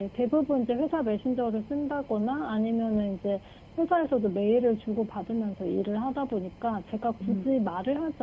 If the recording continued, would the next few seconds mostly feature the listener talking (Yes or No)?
No